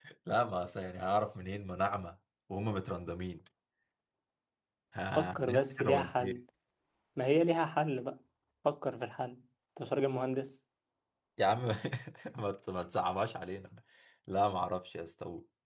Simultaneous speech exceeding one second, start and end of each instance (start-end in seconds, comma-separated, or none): 5.2-6.4